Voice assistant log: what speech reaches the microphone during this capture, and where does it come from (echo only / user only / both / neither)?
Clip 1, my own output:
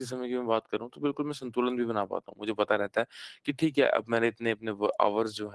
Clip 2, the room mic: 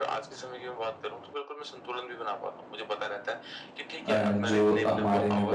both